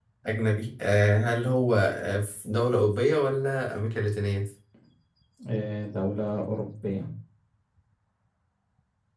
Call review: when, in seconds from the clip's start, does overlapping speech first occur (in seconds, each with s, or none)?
none